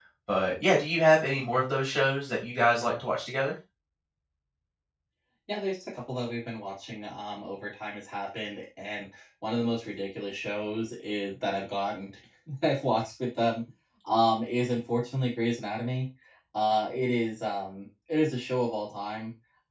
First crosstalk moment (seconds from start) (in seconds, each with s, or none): none